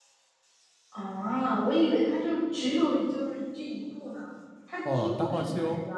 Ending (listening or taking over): taking over